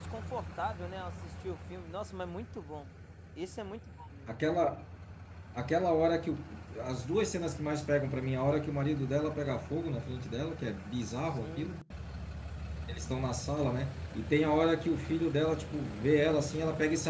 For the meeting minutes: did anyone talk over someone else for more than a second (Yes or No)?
No